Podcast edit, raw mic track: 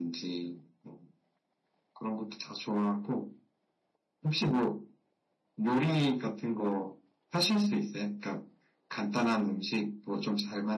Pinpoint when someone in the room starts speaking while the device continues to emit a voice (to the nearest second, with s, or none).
none